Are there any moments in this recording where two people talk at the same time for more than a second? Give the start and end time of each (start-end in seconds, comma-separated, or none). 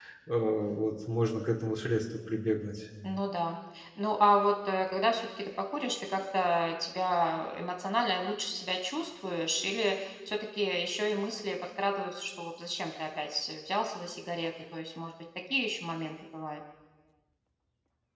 none